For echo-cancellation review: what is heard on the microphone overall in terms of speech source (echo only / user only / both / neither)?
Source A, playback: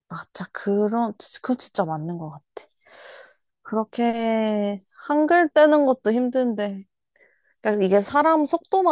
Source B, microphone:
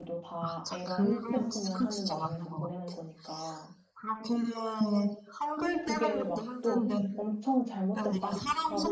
both